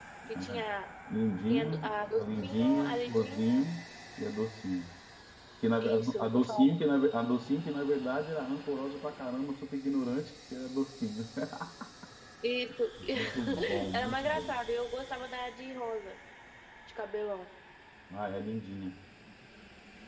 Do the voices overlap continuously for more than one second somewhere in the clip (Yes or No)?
Yes